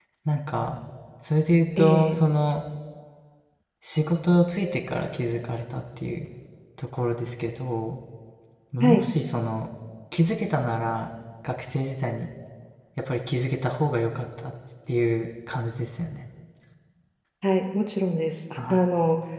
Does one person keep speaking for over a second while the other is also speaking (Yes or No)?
No